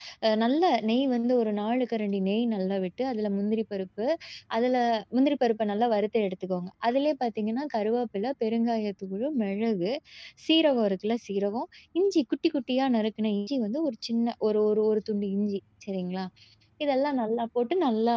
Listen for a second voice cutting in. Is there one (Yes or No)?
No